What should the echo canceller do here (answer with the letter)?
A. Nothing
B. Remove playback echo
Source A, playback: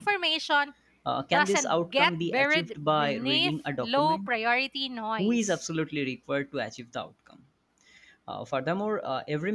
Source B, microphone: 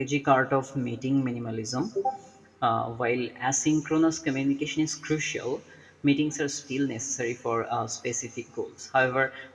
A